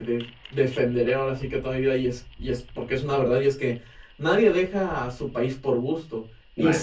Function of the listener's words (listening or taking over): listening